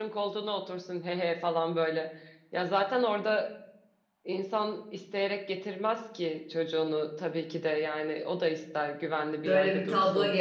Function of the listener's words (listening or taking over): taking over